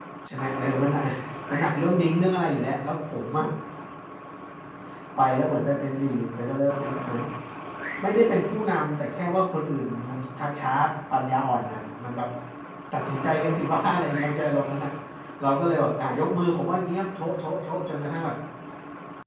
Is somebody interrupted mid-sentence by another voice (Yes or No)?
No